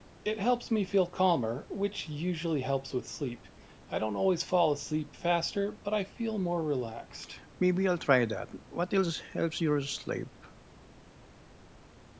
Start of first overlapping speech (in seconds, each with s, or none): none